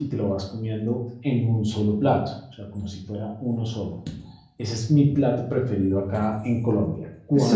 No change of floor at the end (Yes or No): No